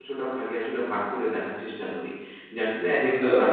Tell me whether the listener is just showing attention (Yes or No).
Yes